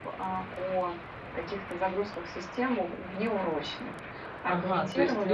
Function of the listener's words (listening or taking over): taking over